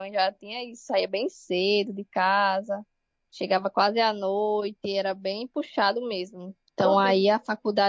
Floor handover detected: No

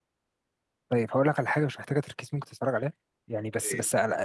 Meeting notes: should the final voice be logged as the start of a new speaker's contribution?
No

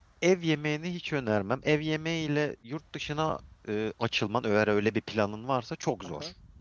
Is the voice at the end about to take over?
Yes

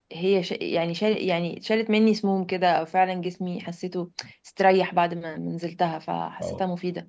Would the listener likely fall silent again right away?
Yes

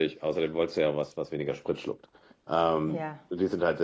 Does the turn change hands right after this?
No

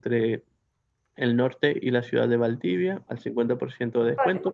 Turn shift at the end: No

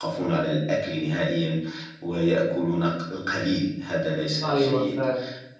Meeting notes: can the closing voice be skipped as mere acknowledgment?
No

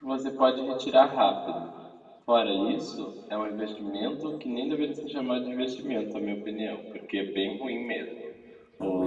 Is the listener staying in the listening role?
Yes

